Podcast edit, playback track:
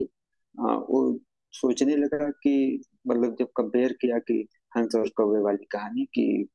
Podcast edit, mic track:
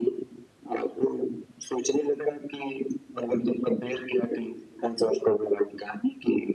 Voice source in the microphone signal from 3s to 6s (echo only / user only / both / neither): echo only